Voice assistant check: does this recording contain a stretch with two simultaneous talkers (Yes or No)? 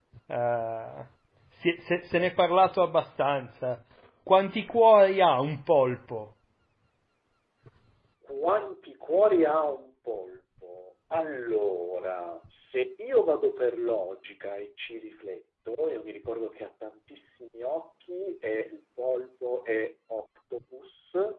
No